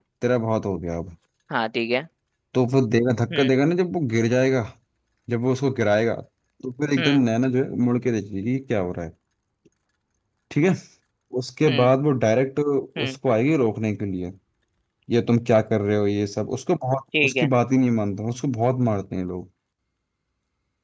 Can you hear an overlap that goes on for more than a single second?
No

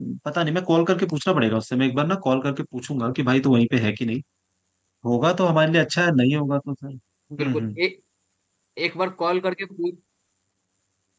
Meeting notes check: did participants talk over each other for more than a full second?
No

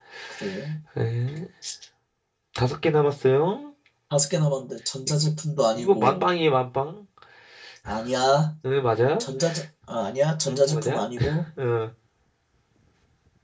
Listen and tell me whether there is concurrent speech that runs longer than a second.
No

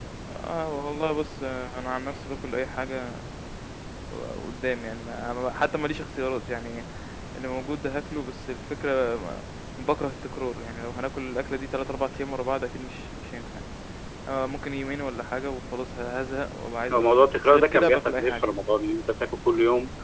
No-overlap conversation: No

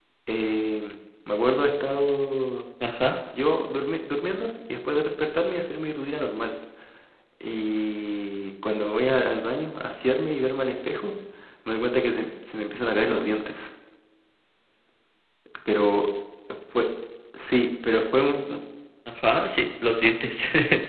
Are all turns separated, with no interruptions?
Yes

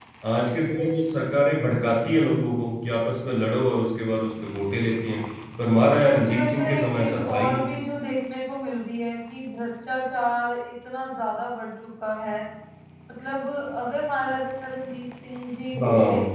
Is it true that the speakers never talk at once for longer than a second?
No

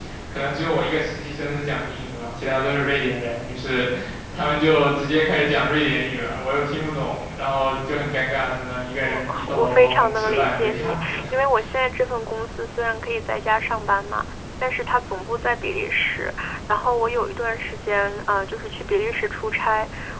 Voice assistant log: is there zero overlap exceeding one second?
No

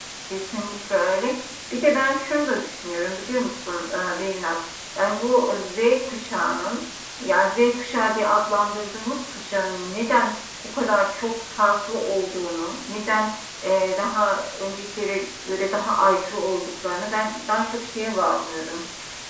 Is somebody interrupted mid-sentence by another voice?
No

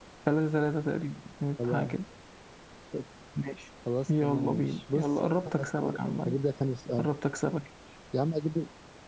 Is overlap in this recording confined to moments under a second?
No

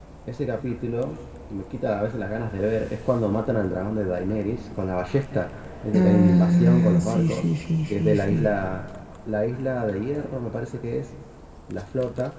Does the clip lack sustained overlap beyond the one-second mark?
No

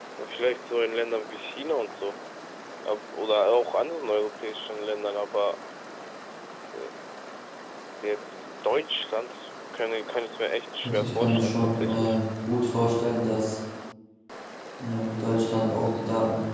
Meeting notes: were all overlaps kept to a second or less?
No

